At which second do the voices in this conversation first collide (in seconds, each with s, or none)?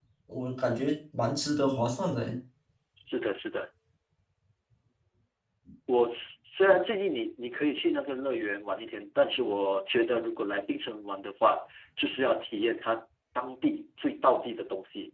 none